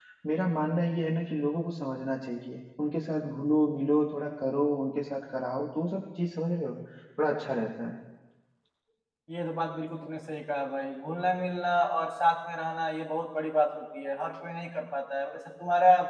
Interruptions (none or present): none